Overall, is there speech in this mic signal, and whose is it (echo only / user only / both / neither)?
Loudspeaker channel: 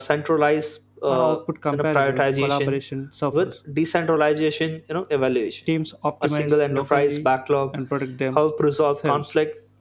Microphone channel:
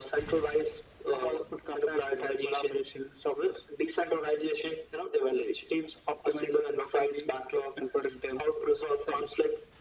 echo only